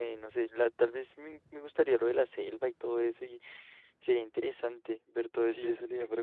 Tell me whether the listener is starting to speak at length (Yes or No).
Yes